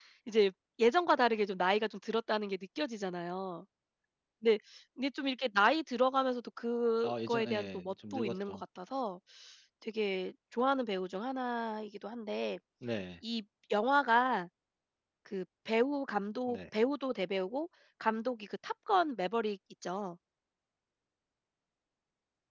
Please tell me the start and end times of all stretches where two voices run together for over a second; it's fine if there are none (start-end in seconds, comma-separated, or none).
7.0-8.6